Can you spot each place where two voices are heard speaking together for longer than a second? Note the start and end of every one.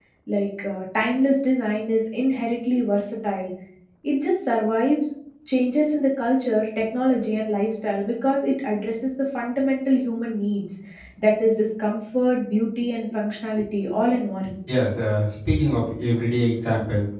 none

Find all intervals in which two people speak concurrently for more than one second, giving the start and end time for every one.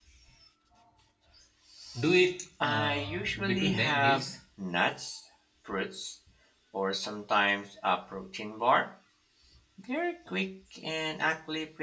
2.6-4.3

